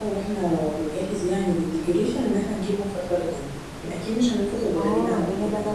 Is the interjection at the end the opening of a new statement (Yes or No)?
Yes